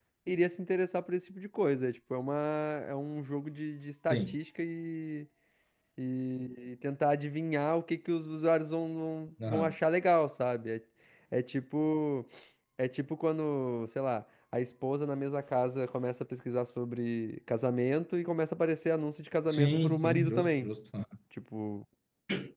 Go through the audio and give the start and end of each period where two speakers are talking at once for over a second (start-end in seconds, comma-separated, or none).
19.5-20.7